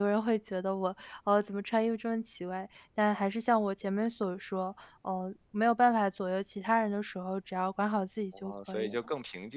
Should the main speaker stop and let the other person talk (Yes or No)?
Yes